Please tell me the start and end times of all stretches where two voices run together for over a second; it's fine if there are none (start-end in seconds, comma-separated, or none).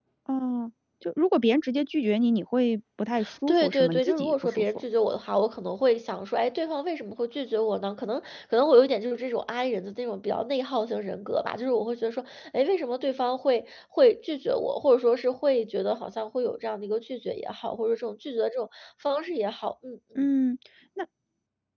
3.5-4.8